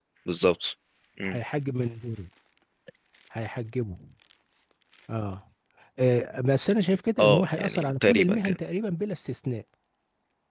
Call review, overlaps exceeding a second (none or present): present